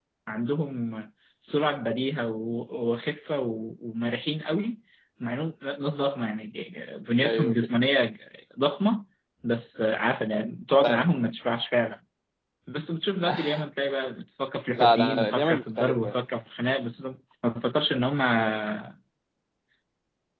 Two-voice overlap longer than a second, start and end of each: 14.8-16.1

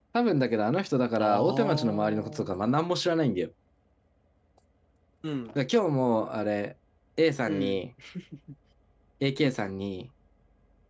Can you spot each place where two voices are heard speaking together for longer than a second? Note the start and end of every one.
1.2-2.5

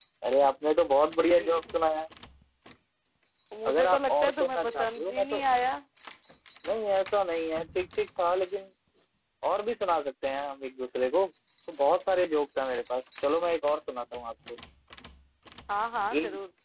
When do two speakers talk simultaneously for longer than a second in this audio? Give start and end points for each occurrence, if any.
3.7-5.4

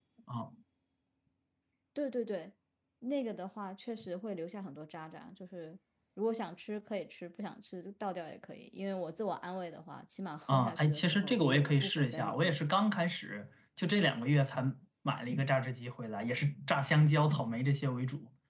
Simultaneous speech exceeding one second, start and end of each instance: 10.5-12.6

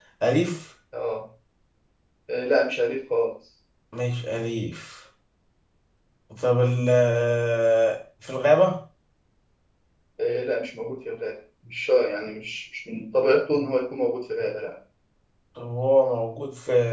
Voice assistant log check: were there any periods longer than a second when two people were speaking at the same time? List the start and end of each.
none

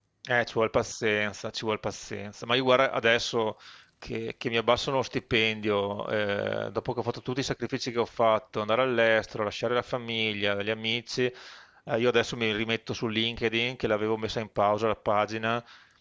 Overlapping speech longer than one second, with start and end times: none

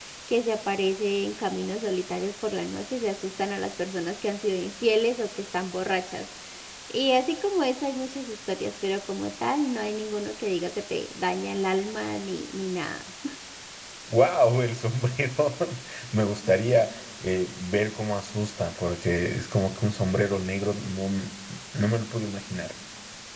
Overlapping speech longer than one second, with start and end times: none

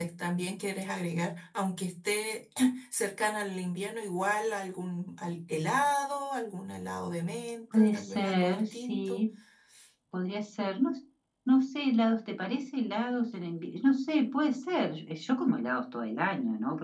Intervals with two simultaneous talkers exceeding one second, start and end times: 7.7-9.2

